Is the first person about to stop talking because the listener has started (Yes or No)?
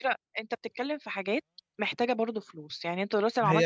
Yes